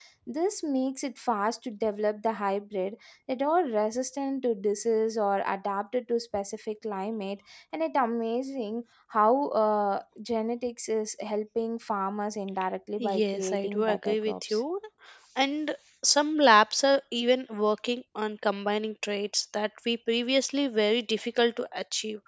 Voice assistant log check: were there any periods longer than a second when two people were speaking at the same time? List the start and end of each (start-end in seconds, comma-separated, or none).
13.0-14.6